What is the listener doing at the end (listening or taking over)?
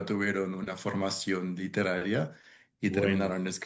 listening